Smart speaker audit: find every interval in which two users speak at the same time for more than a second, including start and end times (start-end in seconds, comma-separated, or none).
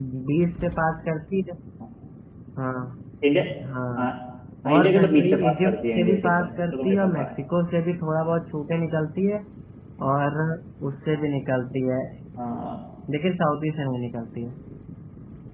4.7-7.3